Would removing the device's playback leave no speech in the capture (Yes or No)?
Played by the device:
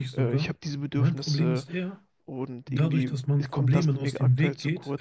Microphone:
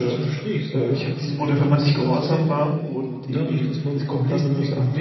No